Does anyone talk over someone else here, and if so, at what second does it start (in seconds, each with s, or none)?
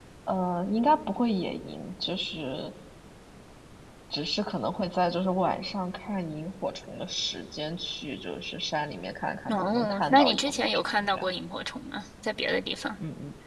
9.5 s